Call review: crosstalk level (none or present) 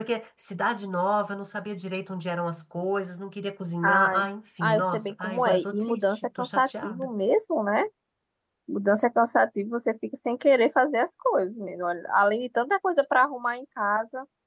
present